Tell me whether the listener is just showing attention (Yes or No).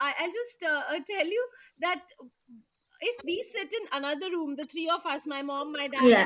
Yes